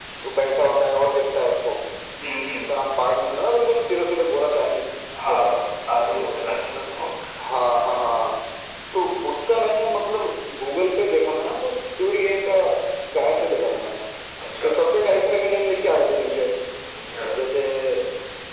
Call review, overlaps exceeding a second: none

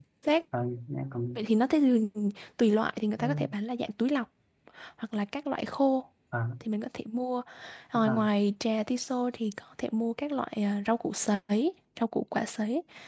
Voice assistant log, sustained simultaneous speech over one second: none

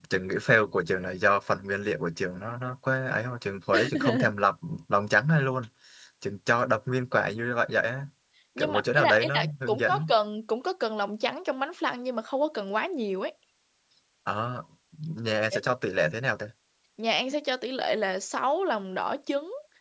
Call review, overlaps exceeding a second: present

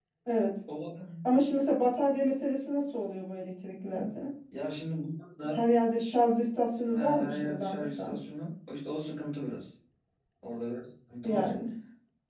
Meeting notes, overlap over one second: present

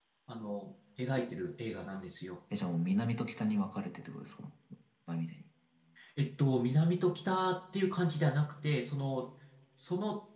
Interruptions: none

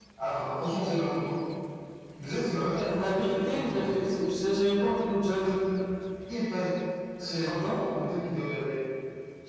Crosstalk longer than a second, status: present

